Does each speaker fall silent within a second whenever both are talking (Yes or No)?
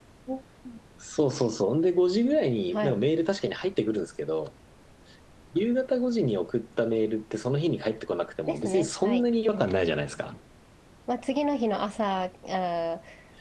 No